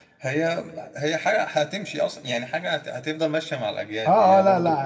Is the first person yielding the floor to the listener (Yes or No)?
Yes